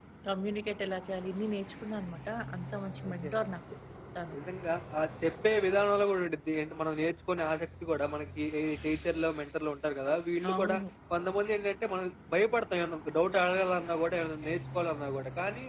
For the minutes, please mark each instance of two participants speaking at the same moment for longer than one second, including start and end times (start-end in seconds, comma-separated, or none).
none